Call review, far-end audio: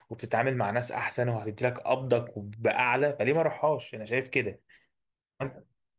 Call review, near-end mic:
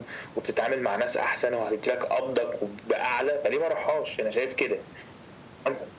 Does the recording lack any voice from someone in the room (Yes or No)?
Yes